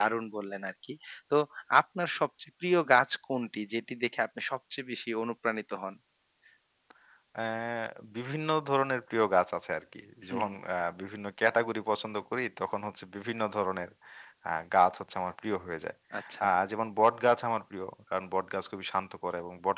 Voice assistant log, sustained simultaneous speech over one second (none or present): none